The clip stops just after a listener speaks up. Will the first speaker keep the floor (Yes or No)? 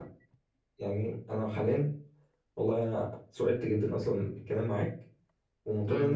Yes